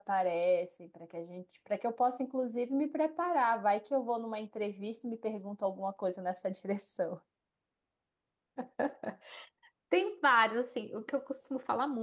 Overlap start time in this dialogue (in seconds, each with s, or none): none